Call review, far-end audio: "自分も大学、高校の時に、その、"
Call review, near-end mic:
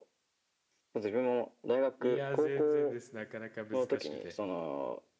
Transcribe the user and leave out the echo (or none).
いや、全然です。なかなか難しくて。